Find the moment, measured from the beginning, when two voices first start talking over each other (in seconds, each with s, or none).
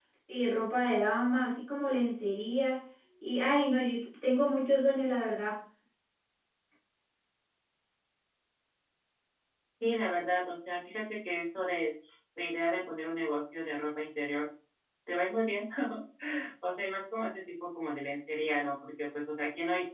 none